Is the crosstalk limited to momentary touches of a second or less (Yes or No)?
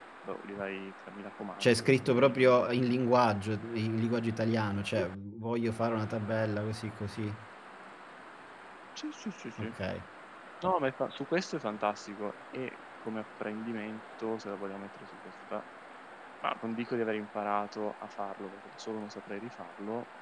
No